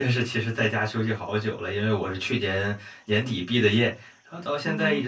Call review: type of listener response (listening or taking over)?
listening